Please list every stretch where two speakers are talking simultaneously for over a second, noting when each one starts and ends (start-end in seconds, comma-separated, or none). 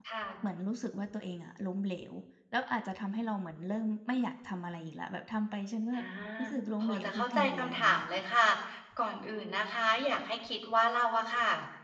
6.8-8.2